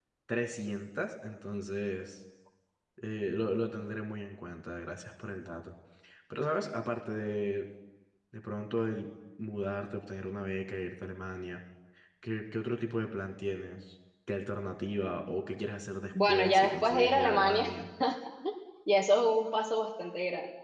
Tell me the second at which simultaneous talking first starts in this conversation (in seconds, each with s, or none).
16.1 s